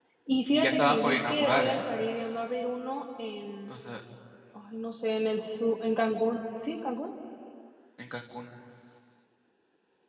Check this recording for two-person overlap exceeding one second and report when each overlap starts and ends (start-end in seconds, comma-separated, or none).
0.5-1.9